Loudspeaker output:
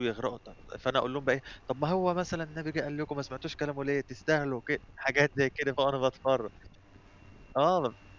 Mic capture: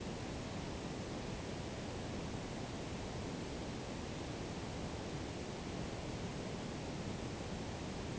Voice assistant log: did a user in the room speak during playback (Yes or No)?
No